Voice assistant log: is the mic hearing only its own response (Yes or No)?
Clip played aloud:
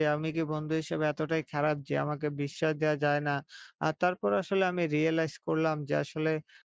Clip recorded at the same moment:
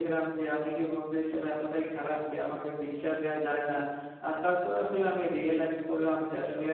Yes